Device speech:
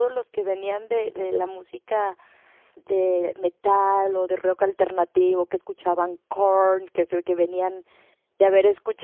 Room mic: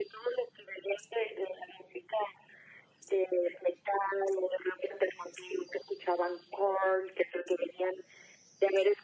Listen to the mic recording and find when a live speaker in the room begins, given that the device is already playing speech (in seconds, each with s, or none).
none